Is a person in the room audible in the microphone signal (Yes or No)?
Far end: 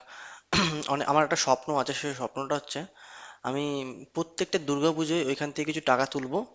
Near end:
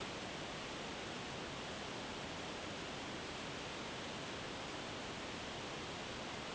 No